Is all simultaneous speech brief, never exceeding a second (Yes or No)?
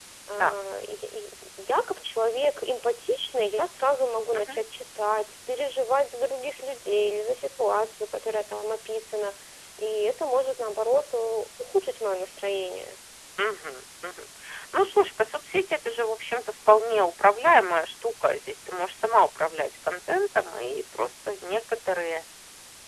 Yes